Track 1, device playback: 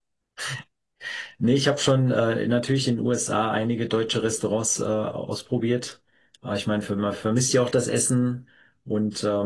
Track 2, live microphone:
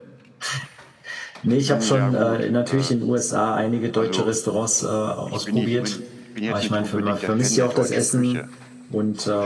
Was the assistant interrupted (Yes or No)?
Yes